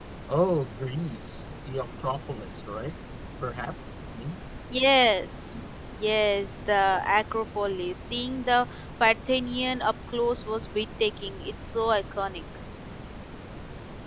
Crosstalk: none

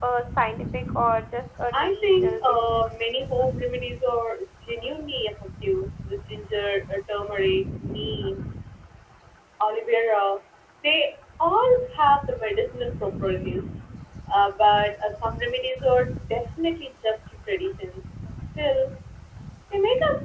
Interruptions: present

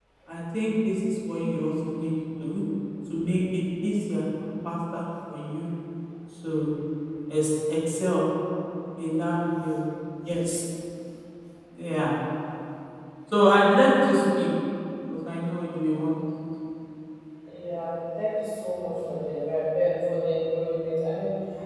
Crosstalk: none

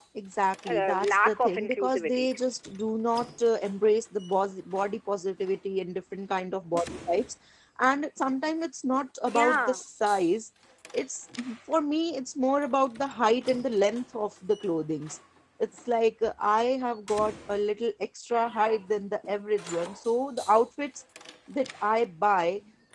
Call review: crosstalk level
present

